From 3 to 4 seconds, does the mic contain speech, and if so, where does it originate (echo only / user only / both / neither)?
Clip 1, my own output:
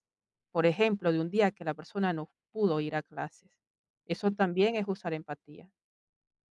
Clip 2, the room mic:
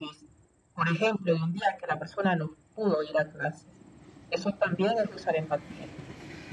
echo only